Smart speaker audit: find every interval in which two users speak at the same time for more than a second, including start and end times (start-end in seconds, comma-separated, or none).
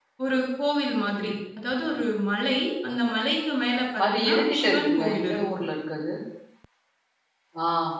4.1-5.4